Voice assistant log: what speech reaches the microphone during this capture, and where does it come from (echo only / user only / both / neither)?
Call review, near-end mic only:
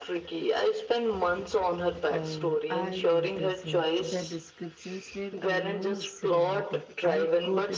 both